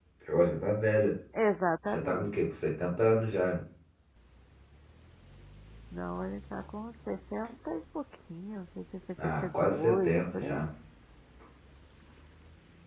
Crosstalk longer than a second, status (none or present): present